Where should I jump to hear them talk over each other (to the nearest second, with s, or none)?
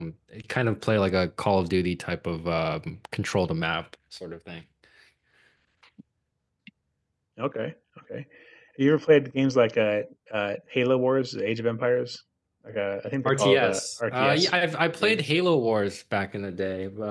13 s